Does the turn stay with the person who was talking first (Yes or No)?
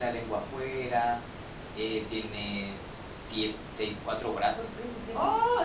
No